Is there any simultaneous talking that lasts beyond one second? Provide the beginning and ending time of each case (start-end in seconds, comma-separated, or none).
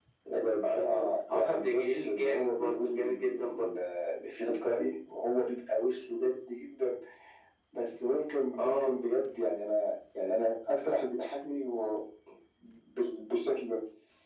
0.6-3.8